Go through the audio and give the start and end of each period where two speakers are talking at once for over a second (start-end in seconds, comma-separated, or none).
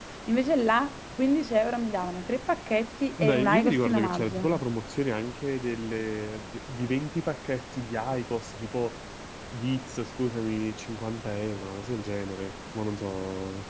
3.2-4.5